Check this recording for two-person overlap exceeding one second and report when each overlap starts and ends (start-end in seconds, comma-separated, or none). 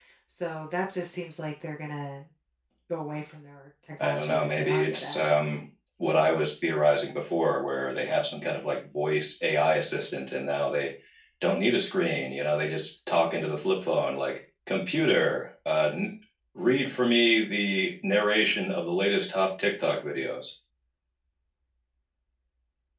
4.0-5.2